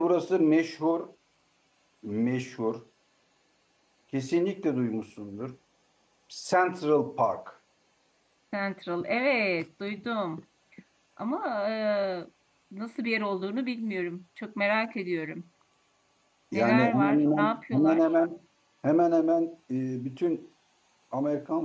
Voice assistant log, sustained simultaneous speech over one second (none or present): present